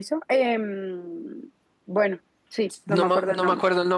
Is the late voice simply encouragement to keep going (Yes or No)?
No